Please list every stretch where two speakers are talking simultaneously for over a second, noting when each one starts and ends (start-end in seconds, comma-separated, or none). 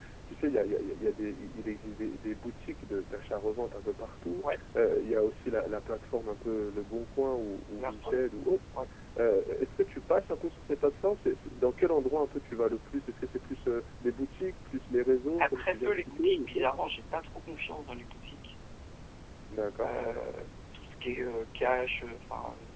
15.4-16.6